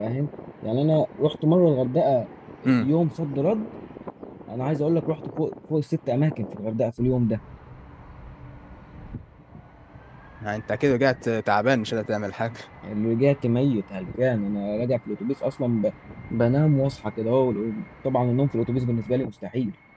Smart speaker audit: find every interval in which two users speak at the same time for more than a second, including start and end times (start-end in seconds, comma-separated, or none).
none